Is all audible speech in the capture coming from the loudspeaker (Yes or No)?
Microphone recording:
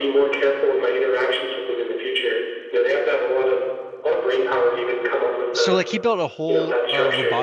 No